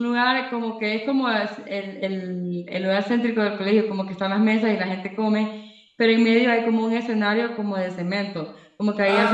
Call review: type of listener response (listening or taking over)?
taking over